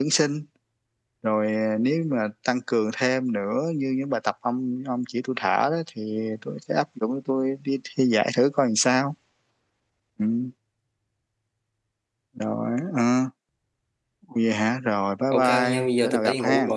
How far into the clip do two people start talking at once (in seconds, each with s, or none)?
15.3 s